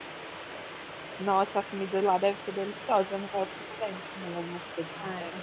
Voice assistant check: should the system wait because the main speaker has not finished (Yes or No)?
No